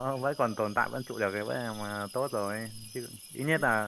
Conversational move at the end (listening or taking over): listening